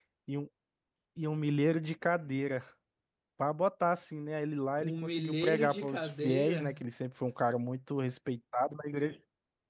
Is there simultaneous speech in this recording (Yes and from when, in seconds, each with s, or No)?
Yes, from 4.8 s